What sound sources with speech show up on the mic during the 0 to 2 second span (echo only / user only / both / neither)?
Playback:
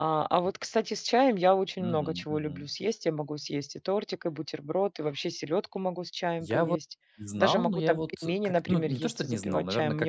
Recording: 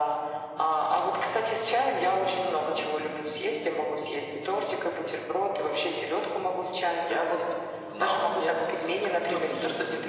echo only